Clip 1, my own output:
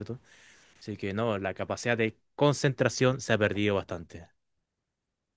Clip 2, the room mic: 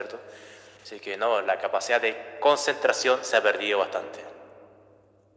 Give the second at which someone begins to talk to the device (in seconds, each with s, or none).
none